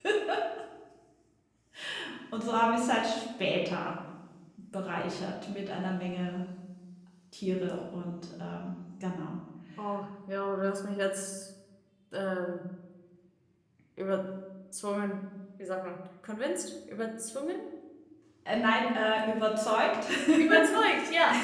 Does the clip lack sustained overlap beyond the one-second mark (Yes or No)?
Yes